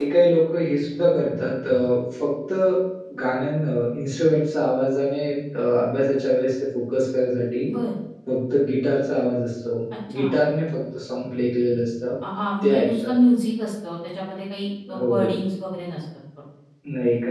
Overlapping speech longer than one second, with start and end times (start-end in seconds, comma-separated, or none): none